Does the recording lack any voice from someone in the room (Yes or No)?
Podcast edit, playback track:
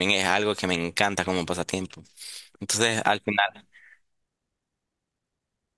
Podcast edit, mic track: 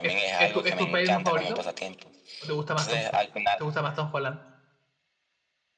No